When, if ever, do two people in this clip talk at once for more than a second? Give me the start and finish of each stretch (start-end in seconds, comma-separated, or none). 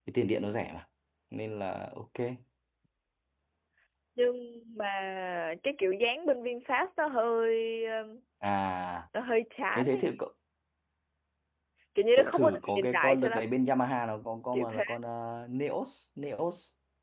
12.2-13.5